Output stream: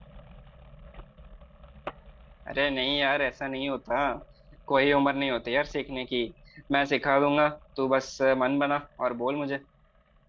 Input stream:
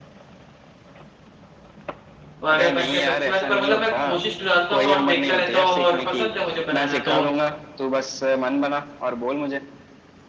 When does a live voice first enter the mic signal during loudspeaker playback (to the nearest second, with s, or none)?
2 s